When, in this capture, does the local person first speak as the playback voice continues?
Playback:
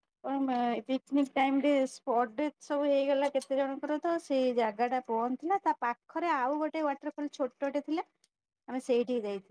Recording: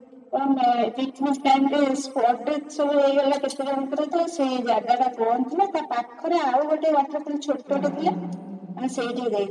8 s

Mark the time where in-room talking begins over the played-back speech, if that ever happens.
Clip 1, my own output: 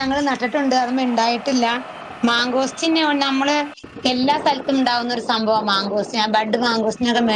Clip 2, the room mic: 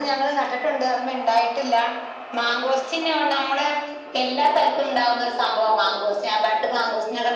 none

